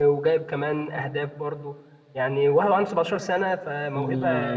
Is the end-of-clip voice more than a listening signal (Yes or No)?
Yes